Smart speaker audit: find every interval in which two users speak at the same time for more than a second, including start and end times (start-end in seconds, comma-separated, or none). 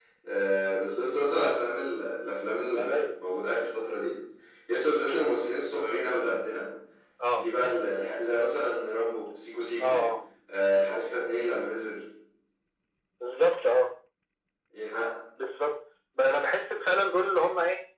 none